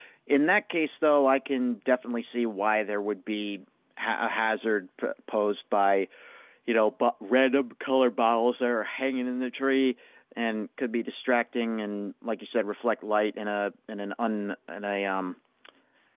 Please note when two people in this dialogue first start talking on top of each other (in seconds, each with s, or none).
none